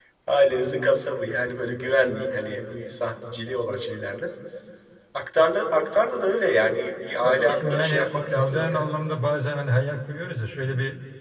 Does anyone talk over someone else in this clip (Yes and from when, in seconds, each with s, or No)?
Yes, from 7.2 s